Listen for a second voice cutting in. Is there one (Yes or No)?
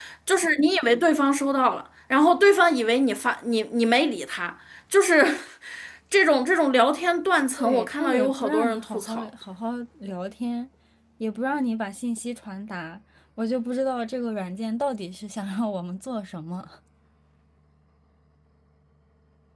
Yes